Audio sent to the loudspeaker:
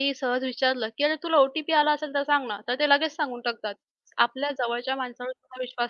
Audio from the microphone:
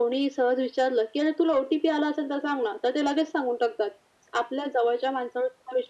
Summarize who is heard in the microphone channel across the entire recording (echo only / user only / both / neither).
echo only